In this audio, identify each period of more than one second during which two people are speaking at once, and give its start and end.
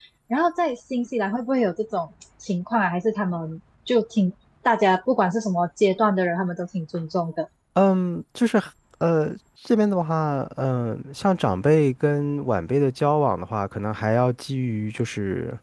none

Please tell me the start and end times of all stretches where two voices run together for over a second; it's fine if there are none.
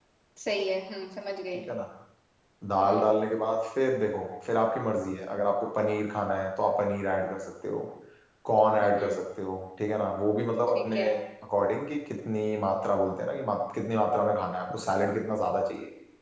none

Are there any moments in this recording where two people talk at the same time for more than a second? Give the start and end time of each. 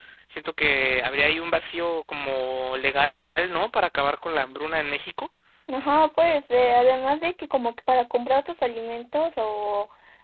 none

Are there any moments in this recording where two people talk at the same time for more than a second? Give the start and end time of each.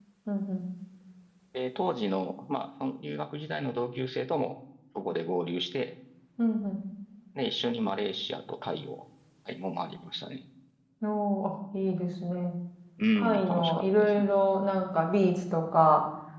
13.2-14.3

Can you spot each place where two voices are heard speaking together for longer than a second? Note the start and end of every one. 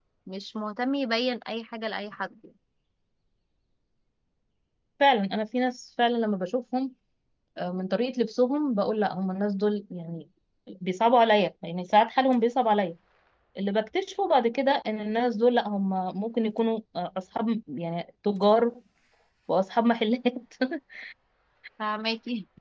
none

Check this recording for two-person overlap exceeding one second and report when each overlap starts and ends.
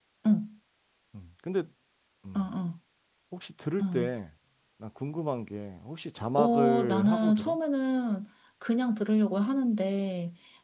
6.4-7.6

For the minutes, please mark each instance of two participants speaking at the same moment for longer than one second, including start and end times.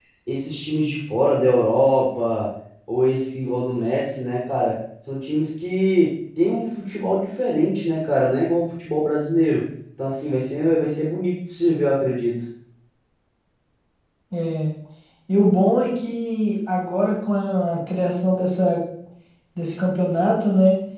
none

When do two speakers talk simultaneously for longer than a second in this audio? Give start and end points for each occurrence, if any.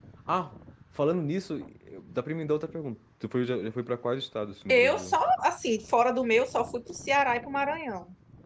none

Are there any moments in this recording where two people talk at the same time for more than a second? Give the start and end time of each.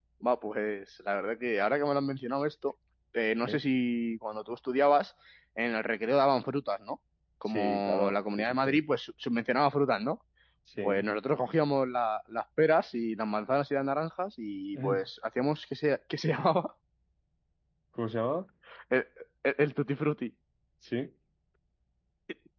7.5-8.8

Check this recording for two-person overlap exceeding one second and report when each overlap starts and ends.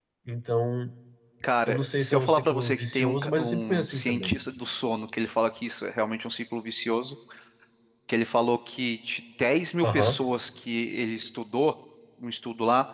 1.7-4.3

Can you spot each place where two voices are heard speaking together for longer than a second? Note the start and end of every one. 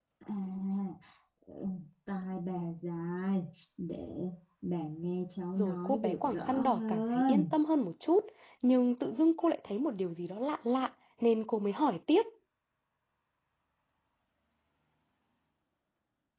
5.6-7.5

